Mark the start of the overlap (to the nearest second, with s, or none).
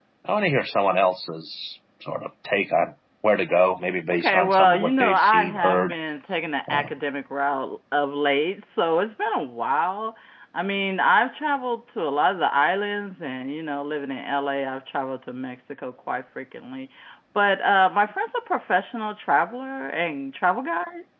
4 s